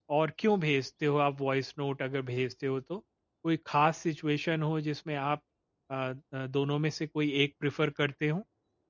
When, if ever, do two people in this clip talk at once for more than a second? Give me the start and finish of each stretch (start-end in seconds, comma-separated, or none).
none